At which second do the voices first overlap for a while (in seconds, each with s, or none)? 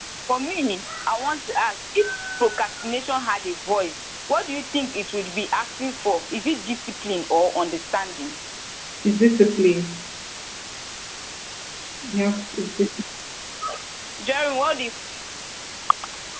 none